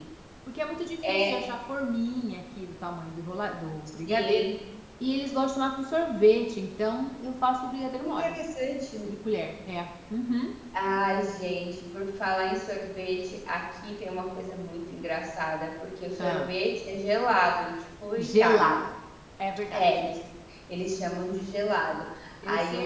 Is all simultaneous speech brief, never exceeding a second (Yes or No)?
Yes